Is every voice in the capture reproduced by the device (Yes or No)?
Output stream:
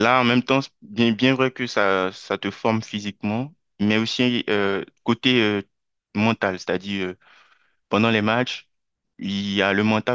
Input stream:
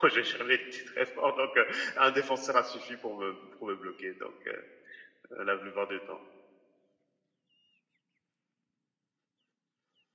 No